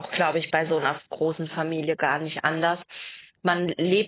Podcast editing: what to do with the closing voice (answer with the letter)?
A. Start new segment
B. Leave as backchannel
B